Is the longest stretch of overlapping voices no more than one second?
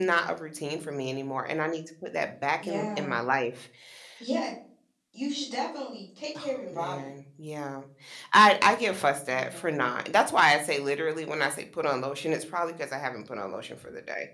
Yes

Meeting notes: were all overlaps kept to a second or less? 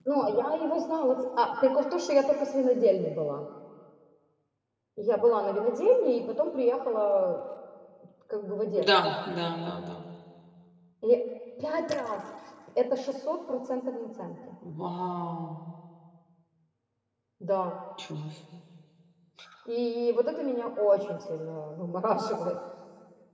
Yes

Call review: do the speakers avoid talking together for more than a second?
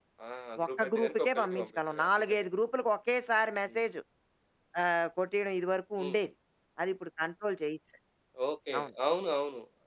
No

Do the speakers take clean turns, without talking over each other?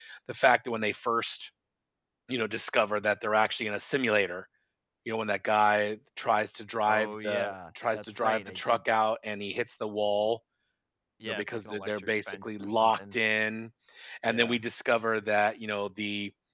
No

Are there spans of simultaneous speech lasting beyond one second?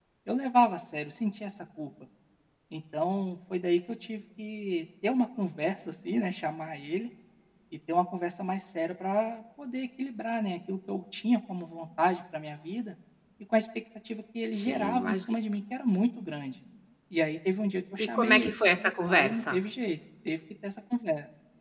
Yes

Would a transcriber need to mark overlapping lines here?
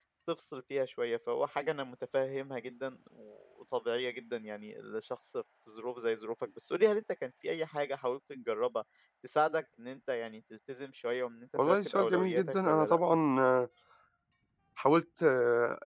Yes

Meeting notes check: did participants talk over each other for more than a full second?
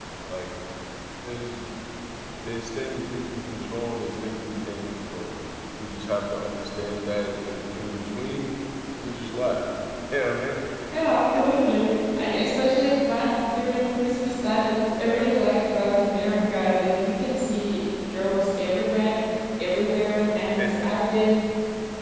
No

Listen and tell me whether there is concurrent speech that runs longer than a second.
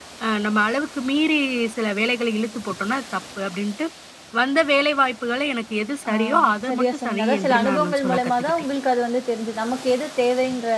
Yes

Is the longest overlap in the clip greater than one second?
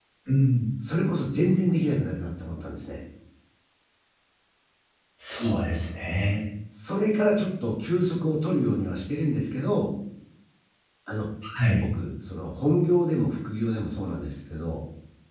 No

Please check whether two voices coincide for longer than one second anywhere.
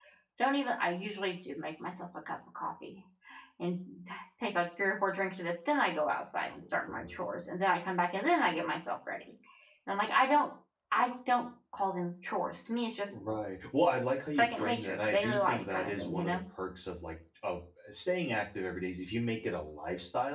Yes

